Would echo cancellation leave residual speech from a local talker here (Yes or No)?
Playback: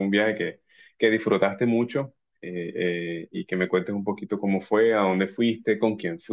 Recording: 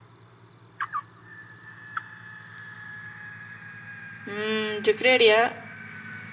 Yes